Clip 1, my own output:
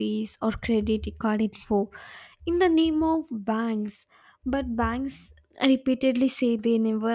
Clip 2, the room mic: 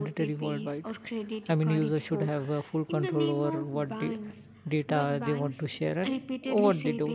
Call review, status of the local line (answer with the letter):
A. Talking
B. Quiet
A